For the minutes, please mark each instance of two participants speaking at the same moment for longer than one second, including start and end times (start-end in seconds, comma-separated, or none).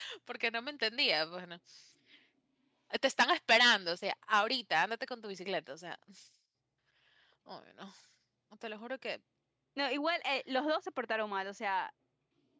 none